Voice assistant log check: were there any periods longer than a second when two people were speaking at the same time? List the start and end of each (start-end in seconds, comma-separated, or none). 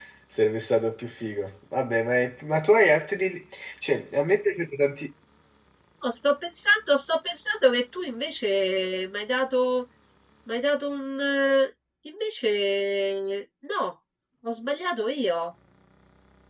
none